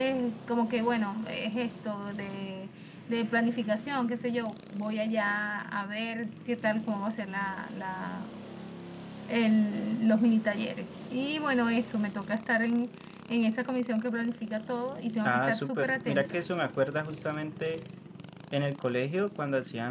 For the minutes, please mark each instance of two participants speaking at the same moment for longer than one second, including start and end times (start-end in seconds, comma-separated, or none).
15.2-16.4